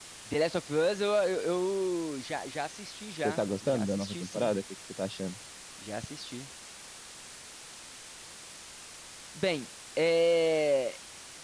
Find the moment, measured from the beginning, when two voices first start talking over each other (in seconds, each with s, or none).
3.2 s